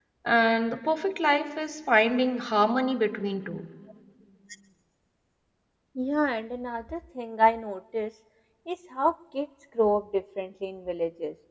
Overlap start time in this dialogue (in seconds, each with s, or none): none